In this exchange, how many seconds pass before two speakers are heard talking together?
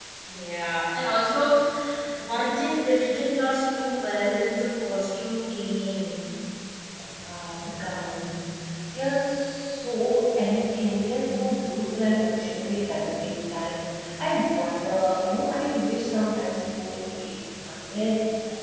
none

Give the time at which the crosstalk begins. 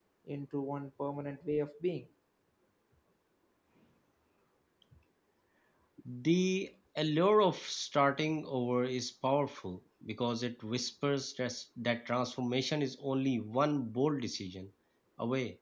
none

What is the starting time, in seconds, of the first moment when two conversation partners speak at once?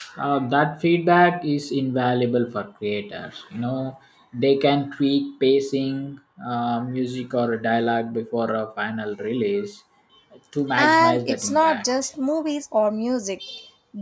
11 s

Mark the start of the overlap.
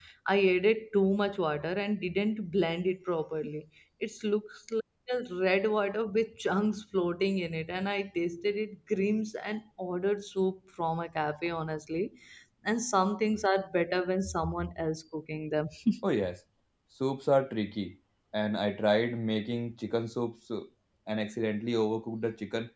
none

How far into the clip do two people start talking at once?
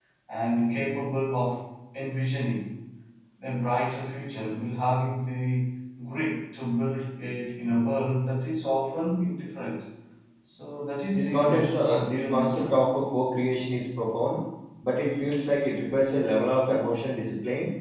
11 s

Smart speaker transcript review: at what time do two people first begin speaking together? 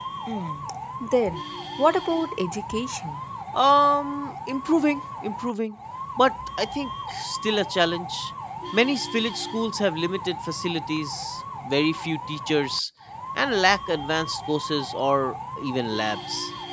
none

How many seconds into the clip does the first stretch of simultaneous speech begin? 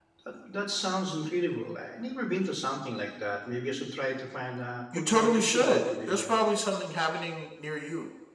5 s

